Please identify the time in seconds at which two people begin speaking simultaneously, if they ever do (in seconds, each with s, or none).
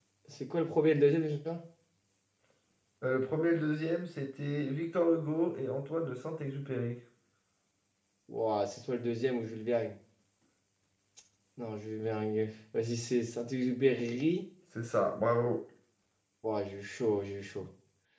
none